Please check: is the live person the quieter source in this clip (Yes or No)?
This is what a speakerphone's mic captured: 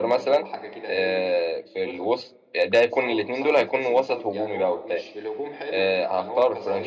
No